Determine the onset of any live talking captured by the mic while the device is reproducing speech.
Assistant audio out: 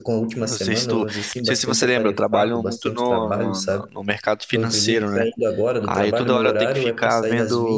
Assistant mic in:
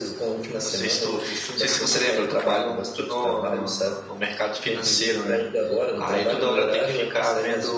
none

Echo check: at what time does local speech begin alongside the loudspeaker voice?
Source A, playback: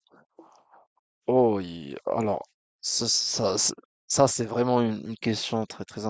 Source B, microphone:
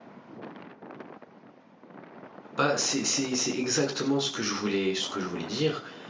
2.5 s

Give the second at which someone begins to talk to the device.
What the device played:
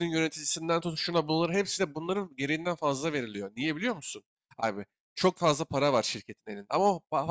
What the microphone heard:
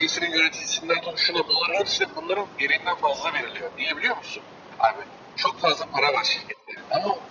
none

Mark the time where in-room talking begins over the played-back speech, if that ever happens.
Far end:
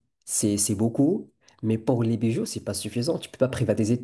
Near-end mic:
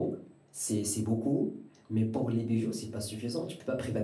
none

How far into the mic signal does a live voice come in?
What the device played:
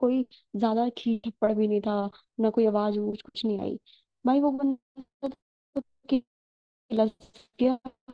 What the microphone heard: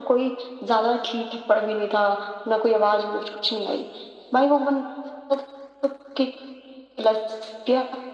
none

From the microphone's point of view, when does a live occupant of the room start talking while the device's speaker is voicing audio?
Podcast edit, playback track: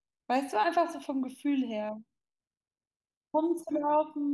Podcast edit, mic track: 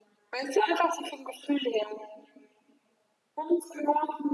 none

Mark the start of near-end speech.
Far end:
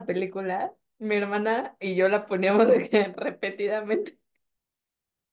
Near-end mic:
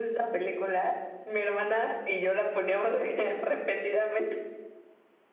none

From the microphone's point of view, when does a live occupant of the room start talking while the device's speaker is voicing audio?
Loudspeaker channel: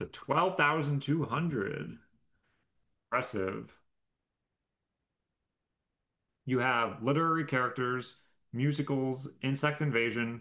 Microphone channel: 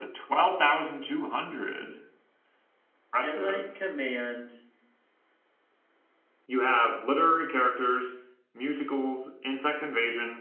3.2 s

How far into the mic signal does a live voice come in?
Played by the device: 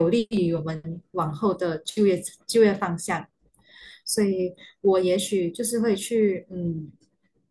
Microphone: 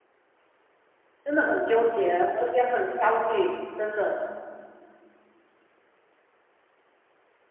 1.2 s

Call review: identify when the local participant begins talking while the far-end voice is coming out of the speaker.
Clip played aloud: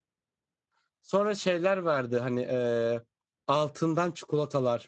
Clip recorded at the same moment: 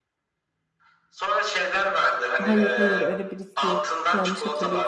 2.4 s

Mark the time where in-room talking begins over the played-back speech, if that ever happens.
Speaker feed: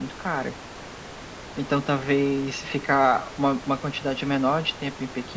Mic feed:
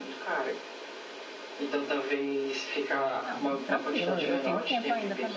3.2 s

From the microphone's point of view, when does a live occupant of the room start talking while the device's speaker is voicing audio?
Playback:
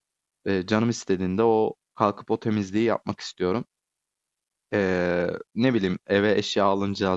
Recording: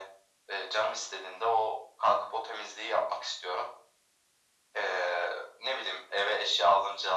none

